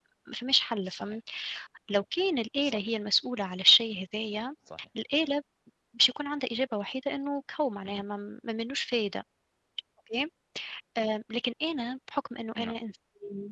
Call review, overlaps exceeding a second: none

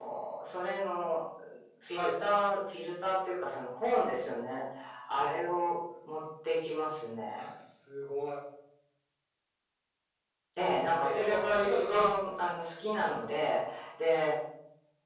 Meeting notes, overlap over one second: present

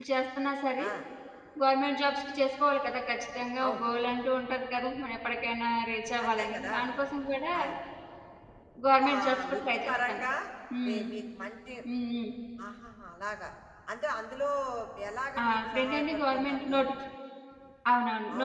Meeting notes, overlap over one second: present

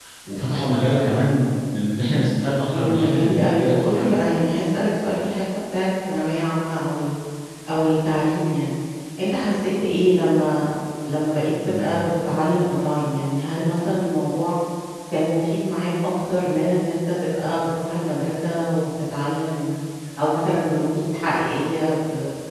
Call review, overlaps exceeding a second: present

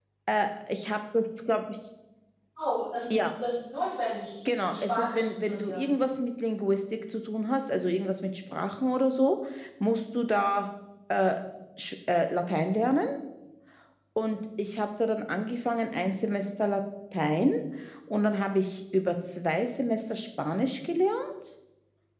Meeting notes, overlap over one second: present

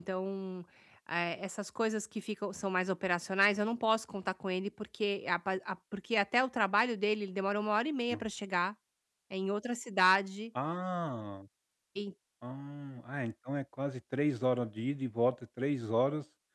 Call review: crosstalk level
none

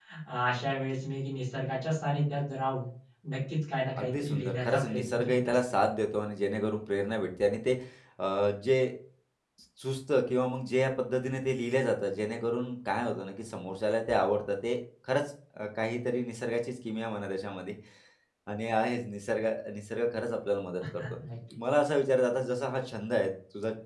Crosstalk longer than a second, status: present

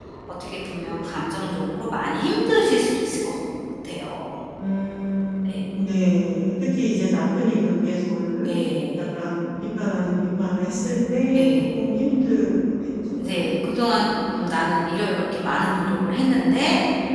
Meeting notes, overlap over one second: none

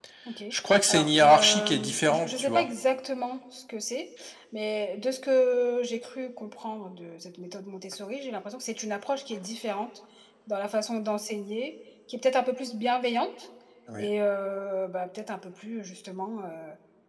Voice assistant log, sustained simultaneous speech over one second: present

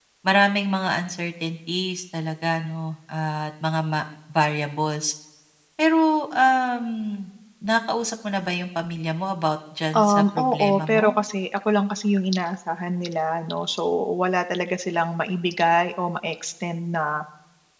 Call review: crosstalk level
present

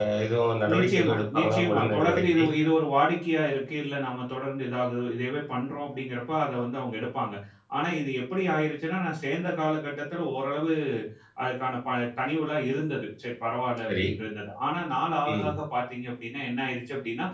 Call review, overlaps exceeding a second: present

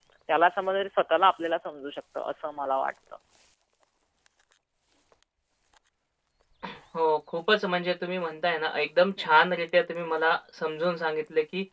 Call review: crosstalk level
none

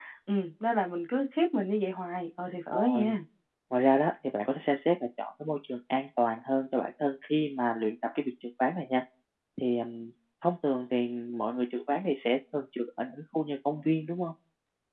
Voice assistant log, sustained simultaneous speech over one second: none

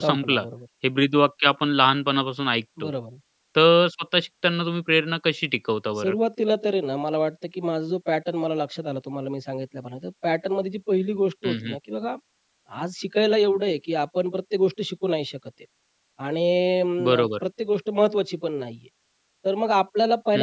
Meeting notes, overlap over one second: none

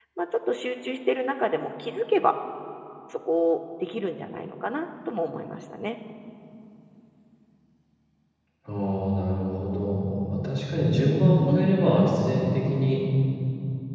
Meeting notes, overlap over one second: none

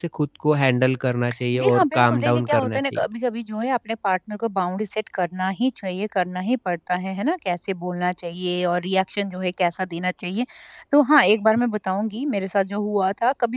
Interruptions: present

